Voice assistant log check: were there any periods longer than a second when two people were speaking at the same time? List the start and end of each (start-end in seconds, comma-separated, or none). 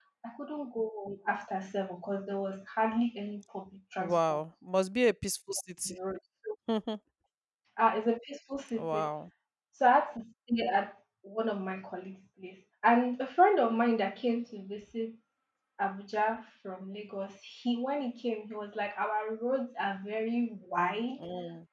none